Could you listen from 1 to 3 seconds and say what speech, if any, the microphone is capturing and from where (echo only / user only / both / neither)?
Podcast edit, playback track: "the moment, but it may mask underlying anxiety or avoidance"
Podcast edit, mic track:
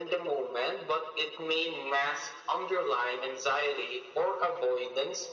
echo only